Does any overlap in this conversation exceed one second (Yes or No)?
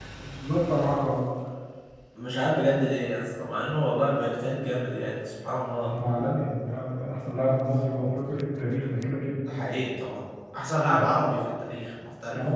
No